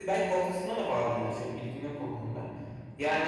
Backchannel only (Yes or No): No